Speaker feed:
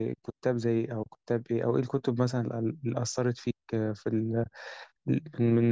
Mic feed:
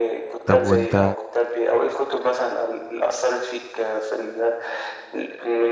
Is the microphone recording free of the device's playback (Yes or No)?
No